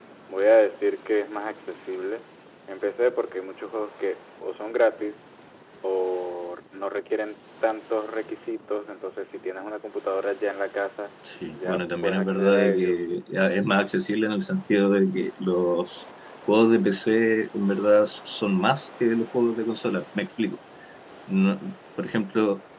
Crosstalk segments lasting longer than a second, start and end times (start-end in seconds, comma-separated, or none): 11.5-13.0